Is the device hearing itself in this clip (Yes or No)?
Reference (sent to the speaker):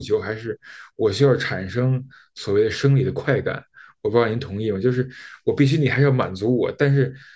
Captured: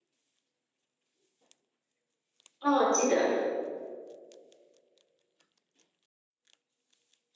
No